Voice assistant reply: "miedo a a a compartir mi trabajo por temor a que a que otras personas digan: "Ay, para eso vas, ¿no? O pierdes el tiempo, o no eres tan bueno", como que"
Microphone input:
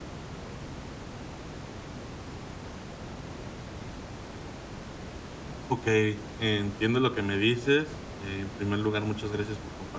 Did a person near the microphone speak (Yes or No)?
Yes